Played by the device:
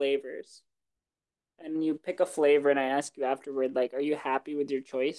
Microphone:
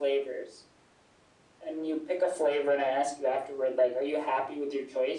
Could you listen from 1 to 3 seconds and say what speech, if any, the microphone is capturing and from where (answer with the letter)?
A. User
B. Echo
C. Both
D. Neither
B